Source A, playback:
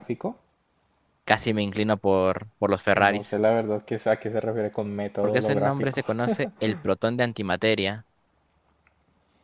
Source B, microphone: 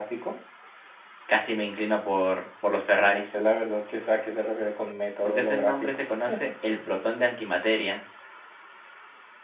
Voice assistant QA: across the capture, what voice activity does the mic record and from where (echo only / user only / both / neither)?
echo only